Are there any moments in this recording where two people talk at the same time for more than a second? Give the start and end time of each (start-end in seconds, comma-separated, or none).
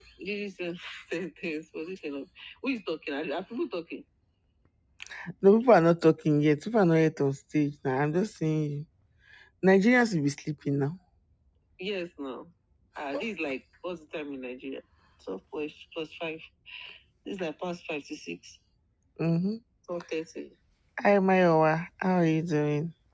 none